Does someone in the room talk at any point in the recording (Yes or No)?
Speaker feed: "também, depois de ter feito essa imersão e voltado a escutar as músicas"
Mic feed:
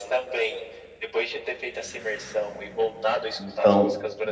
Yes